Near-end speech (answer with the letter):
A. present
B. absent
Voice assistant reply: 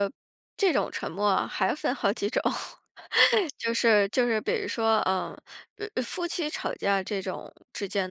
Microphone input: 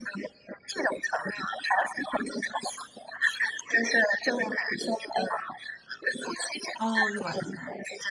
A